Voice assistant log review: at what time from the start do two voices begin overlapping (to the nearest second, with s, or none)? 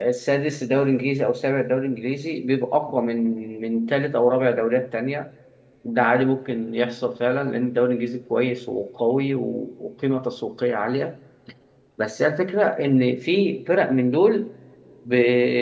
none